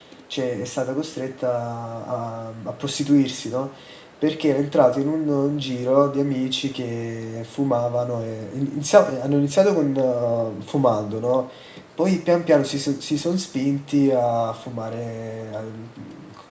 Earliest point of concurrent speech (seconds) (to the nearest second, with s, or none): none